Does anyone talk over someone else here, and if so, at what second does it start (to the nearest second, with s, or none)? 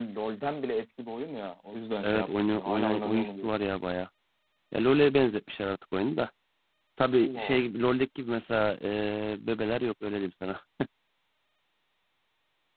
2 s